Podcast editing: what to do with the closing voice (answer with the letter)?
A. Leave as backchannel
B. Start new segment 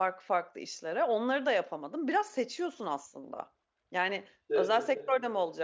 A